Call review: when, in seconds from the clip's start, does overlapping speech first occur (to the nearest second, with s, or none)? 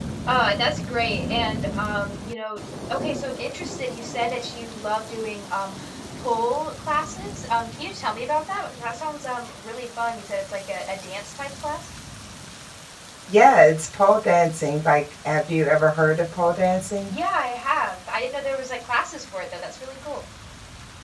none